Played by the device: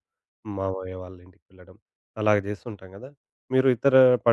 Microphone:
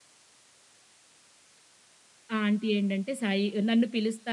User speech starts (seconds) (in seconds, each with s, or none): 2.3 s